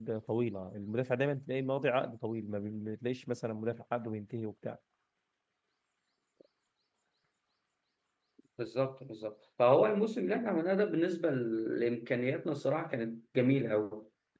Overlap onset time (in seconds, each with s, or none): none